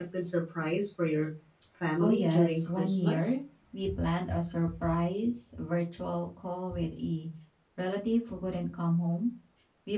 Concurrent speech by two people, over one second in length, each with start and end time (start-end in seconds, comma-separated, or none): 2.0-3.4